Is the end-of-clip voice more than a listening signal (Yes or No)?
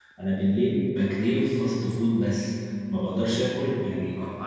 Yes